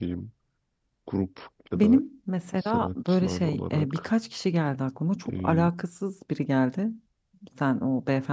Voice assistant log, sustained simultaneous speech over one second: present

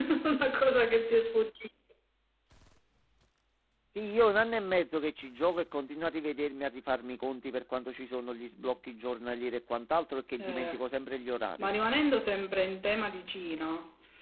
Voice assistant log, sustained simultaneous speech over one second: none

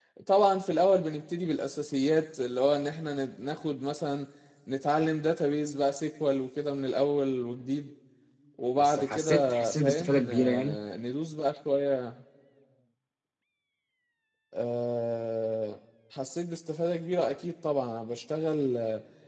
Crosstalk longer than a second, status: present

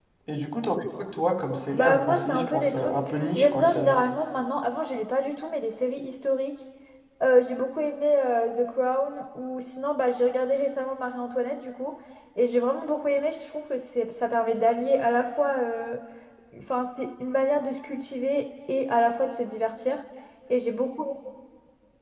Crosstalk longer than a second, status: present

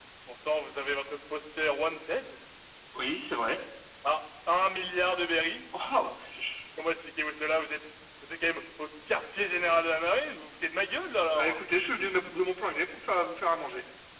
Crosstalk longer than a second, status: none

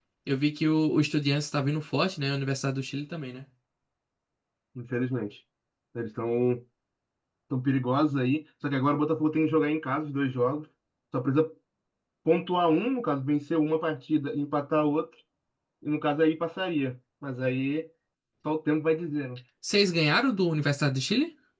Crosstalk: none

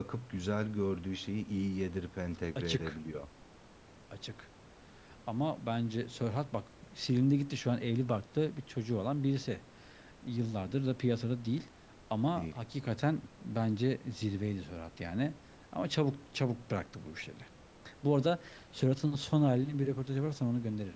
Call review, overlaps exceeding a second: none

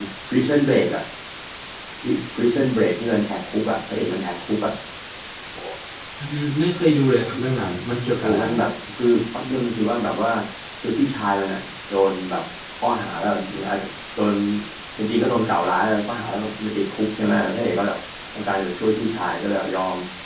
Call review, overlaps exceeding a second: none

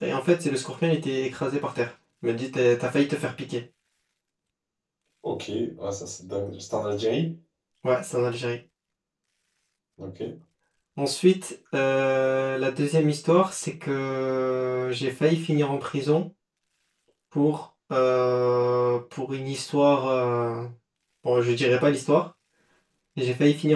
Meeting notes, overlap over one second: none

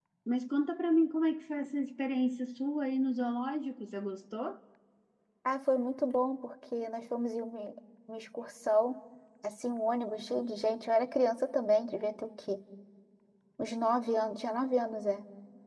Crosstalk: none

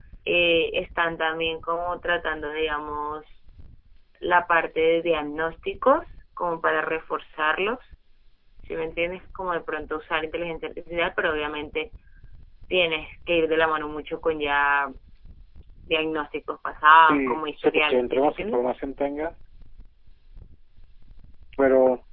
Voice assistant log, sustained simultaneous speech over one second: present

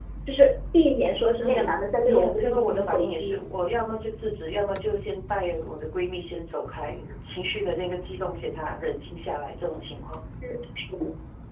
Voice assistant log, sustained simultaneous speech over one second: present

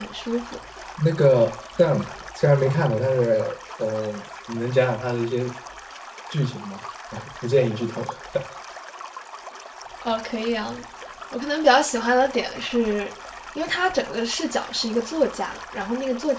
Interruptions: none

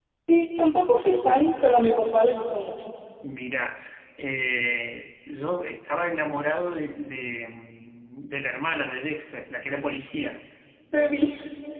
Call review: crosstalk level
none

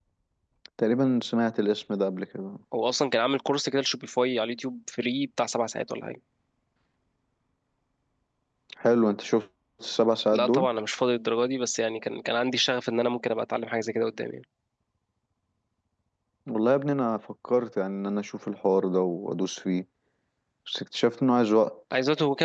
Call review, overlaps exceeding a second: none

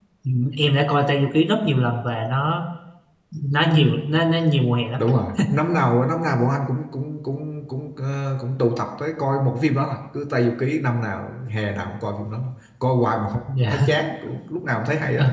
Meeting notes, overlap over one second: none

